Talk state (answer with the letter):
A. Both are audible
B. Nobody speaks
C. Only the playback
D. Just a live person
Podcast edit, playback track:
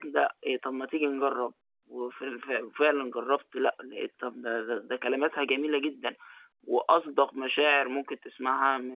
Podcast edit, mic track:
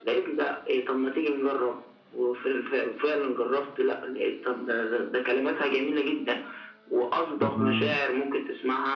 A